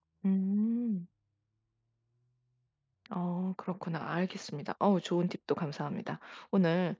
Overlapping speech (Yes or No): No